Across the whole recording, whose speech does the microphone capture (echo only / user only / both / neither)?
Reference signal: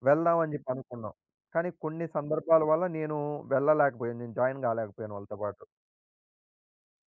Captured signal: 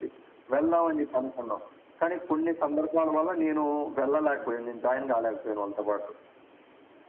echo only